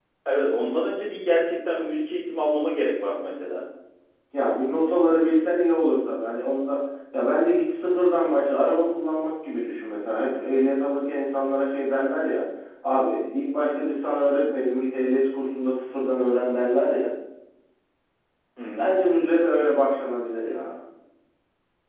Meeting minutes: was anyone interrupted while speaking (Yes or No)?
No